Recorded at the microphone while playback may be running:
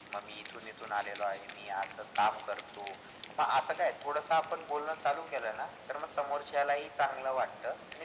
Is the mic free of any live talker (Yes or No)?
Yes